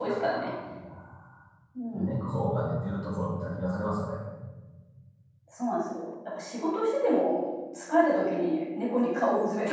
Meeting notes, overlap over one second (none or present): none